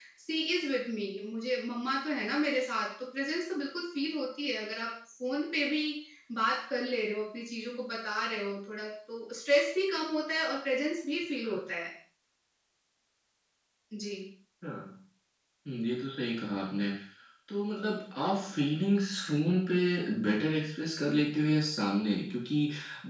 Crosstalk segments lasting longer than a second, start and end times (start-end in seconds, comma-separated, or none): none